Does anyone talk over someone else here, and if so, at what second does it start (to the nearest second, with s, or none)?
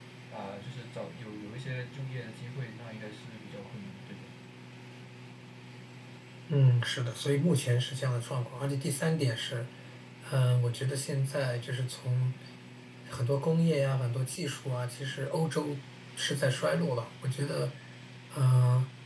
none